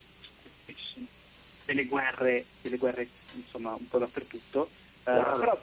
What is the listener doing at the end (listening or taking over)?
listening